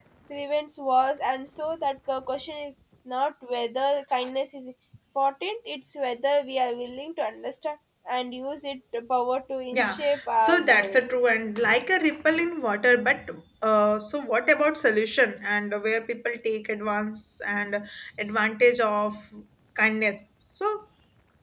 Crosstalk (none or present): present